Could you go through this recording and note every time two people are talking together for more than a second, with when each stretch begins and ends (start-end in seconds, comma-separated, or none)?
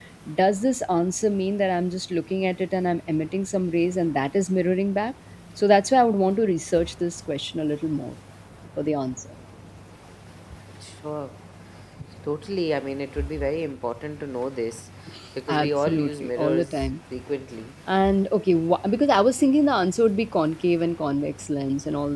15.5-16.8